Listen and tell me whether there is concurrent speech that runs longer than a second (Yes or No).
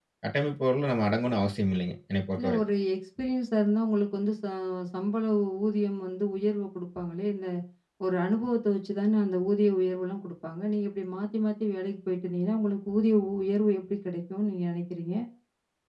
No